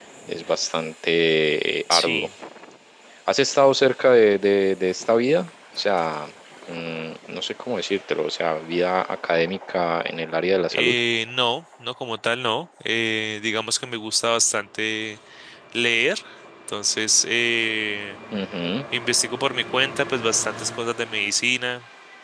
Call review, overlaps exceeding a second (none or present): none